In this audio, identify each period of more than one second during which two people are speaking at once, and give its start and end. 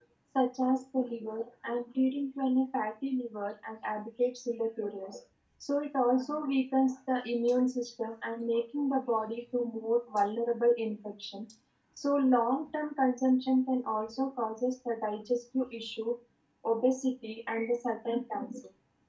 none

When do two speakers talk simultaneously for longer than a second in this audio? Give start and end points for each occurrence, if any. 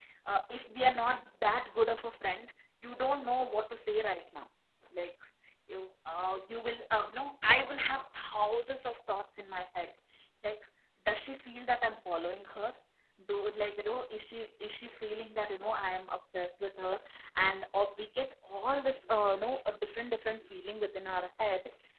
none

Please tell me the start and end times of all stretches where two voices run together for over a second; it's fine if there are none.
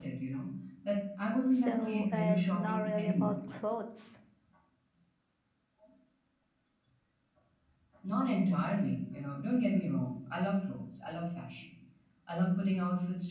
1.5-3.4

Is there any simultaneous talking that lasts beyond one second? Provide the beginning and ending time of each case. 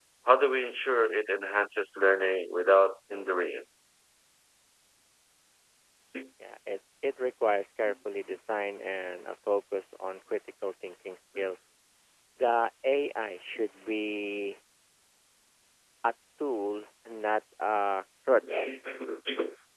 none

